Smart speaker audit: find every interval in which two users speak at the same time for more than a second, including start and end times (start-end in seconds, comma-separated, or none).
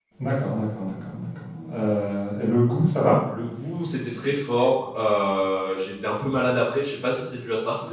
none